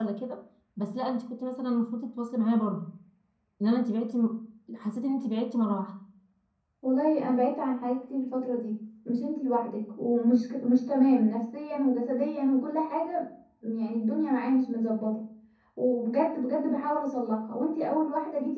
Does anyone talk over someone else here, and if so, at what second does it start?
none

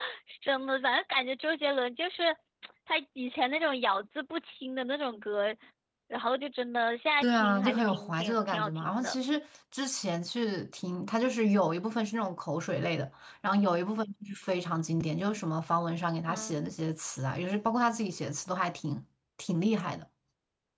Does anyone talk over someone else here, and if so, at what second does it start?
7.2 s

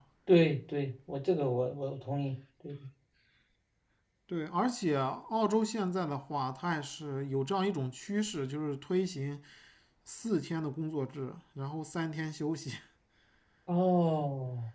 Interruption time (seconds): none

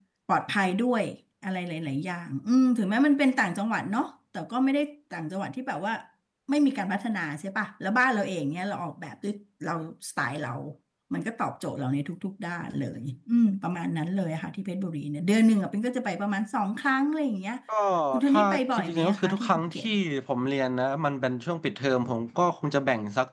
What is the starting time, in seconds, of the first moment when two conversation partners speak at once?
18.2 s

